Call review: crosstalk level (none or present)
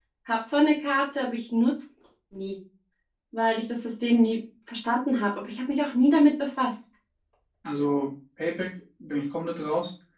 none